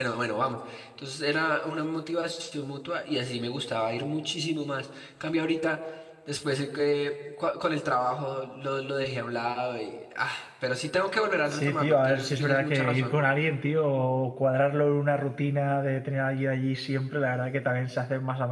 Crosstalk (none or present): present